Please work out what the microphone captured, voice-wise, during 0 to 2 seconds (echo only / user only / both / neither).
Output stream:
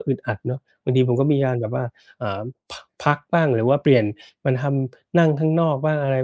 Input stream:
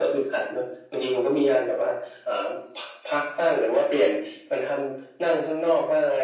echo only